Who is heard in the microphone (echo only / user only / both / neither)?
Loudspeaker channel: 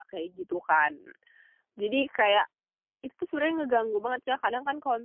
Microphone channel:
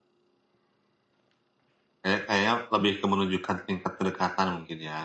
user only